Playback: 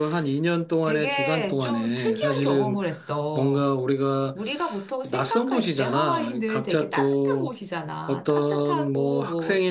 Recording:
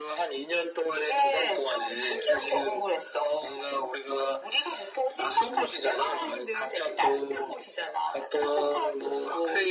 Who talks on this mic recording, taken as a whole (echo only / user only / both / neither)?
echo only